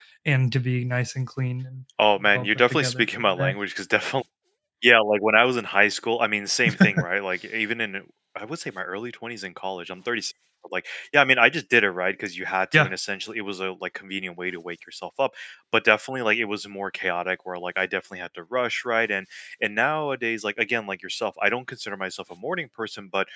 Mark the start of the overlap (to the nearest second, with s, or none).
2 s